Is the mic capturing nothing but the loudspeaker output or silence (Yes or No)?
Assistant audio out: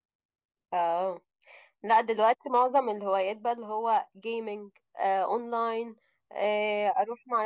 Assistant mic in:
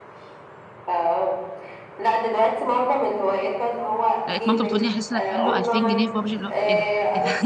No